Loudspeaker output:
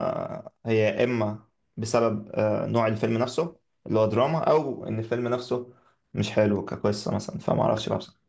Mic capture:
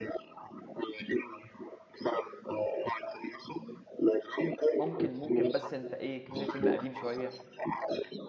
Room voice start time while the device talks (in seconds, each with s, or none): 4.8 s